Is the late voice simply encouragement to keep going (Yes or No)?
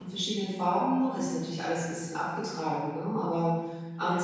Yes